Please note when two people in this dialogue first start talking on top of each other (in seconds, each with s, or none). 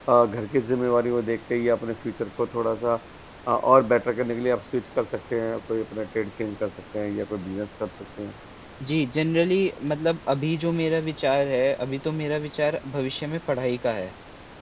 none